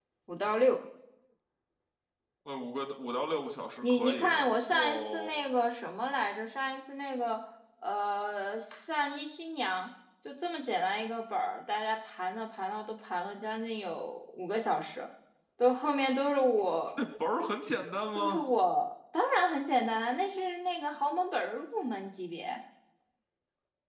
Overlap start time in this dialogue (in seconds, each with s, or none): 3.8 s